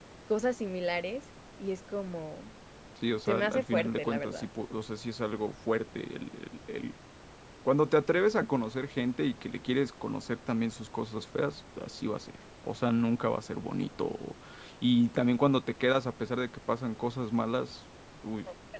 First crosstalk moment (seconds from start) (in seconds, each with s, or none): 3.3 s